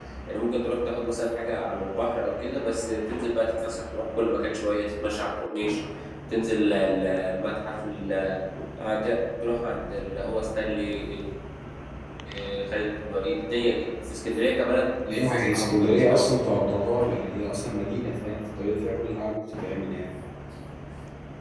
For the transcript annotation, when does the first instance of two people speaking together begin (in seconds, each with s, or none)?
15.1 s